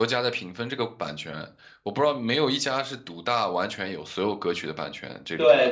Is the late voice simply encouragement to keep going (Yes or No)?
No